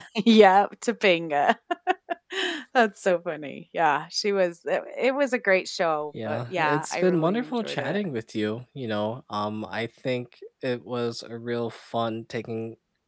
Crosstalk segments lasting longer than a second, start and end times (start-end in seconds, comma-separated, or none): 6.2-8.0